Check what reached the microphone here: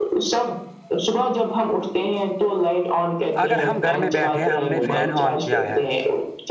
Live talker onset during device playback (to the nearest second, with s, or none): 3 s